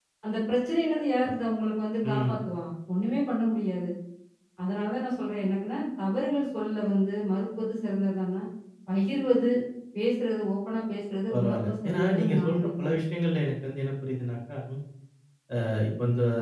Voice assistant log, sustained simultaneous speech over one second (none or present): present